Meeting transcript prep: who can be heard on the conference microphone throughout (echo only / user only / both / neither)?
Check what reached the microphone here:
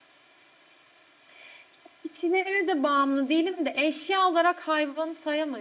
echo only